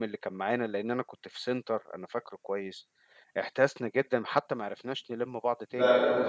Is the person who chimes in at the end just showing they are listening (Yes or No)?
No